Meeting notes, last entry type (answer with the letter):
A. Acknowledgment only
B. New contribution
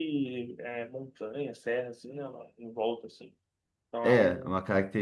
B